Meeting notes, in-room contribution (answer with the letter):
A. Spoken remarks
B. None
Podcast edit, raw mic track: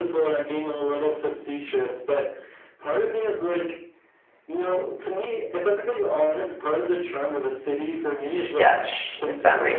A